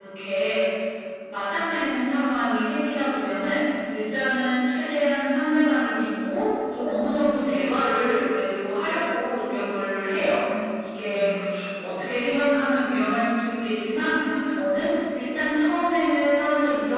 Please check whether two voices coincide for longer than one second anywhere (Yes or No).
No